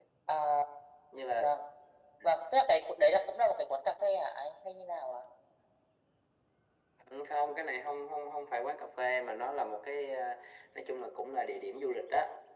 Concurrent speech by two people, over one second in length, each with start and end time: none

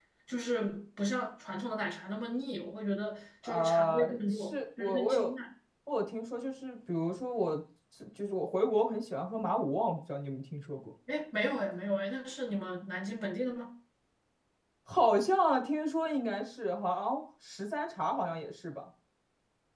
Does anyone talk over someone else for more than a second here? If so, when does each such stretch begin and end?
3.5-5.3

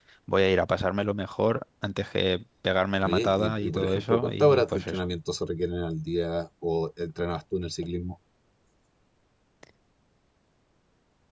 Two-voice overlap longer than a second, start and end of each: 3.0-5.0

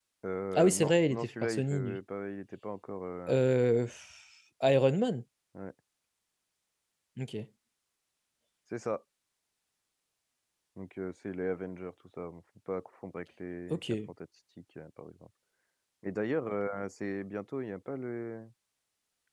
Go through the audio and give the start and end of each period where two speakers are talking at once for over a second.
0.5-2.0

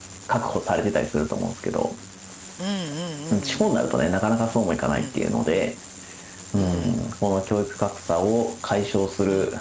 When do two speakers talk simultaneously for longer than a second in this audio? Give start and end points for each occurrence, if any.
none

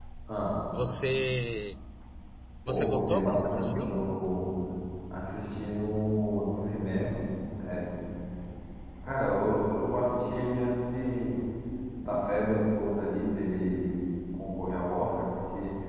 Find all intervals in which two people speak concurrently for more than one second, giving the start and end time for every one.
2.7-4.0

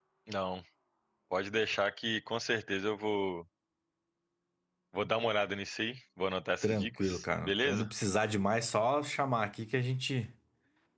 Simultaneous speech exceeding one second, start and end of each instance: 6.6-7.9

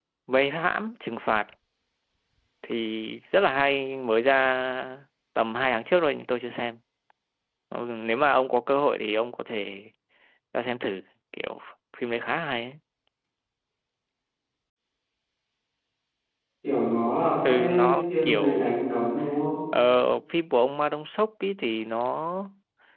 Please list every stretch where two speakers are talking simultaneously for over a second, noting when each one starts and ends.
17.4-18.7

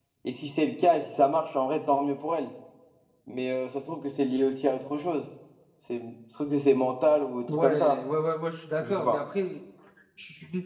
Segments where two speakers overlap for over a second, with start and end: none

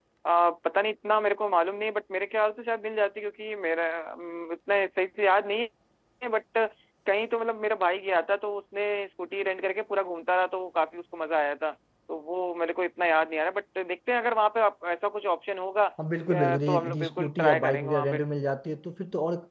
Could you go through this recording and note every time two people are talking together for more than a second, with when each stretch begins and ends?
16.3-18.2

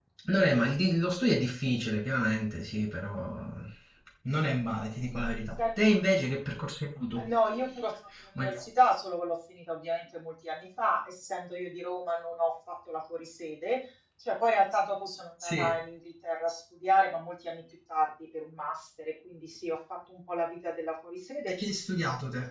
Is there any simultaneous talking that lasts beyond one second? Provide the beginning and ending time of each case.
none

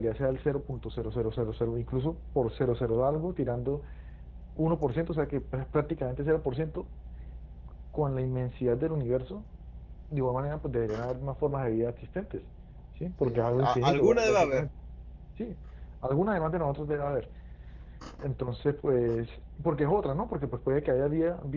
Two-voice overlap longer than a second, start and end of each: 13.2-14.7

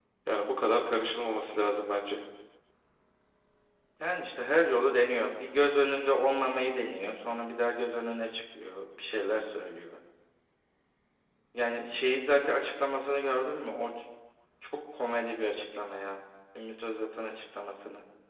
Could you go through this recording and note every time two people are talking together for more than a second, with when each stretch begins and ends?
none

